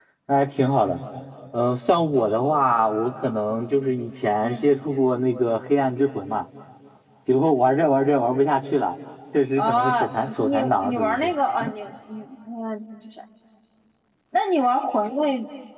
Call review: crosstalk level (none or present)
present